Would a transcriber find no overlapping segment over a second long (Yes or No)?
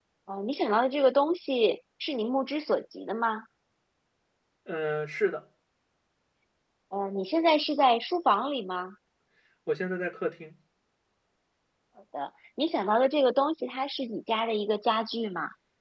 Yes